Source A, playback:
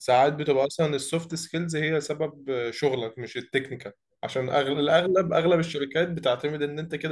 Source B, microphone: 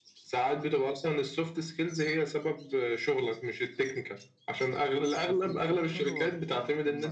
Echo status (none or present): present